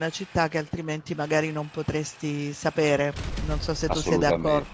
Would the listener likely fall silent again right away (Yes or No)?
No